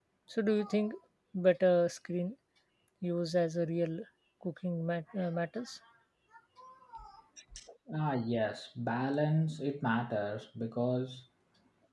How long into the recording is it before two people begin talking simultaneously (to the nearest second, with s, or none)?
none